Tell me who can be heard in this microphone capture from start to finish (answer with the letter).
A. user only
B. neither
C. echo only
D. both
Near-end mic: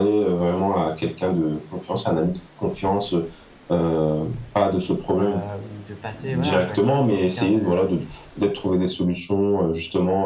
D